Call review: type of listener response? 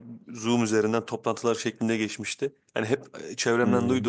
listening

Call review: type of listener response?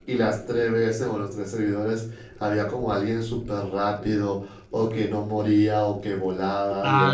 taking over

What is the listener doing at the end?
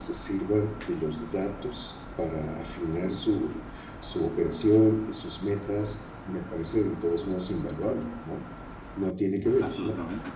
taking over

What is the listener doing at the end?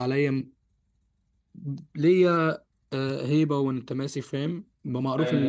listening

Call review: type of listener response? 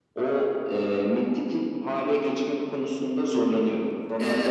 taking over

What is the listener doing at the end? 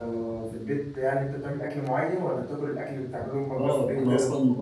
taking over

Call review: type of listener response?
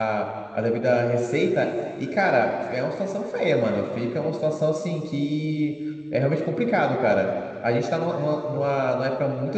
listening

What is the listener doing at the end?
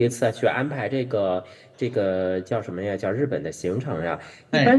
listening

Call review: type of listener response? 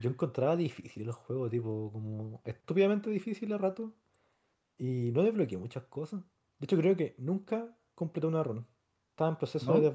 listening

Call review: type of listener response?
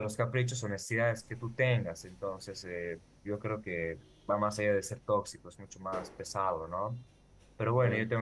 listening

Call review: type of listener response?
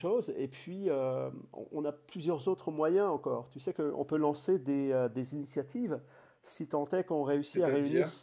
listening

